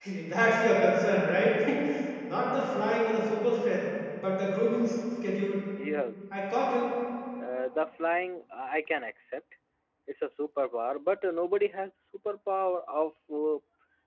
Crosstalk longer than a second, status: none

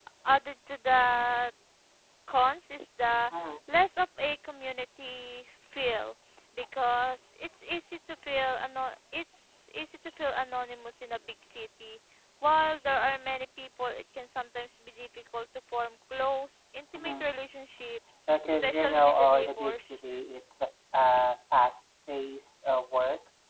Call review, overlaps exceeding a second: present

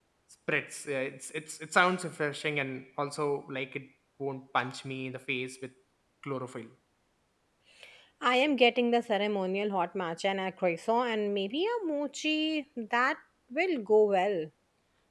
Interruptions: none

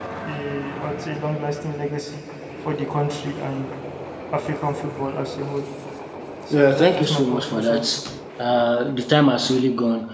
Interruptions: present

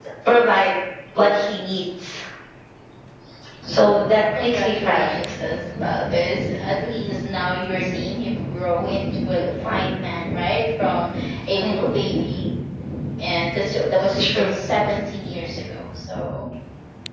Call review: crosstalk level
present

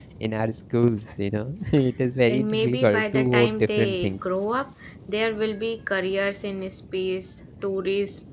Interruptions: present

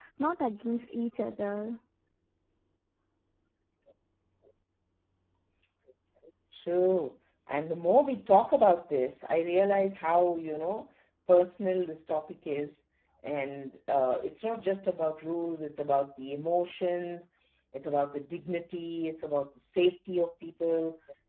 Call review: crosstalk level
none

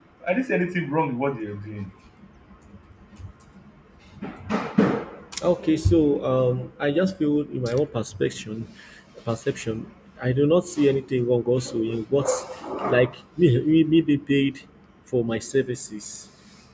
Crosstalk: none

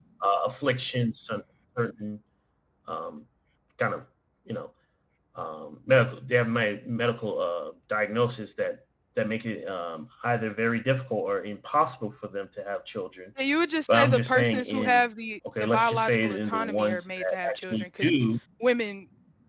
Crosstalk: present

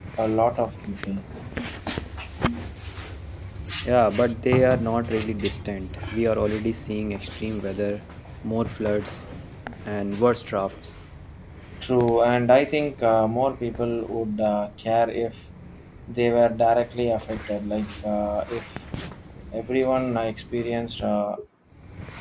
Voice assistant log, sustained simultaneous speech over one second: none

